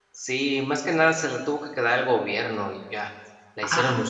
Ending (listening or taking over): taking over